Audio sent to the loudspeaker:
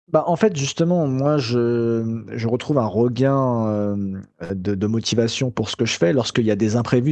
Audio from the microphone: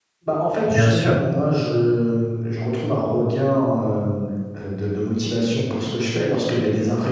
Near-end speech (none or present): present